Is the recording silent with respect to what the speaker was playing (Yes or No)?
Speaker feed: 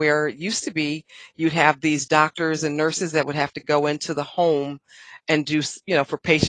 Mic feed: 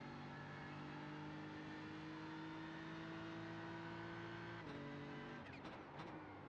Yes